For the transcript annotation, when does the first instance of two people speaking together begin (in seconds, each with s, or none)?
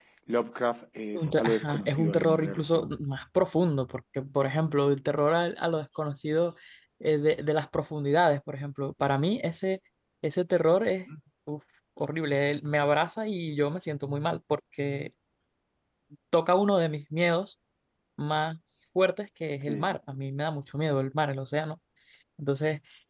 1.1 s